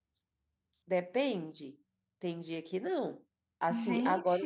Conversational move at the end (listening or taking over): listening